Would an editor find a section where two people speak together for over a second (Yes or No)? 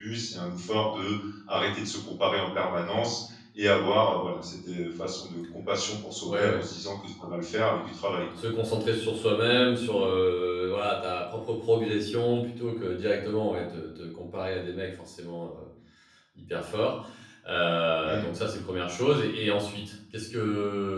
No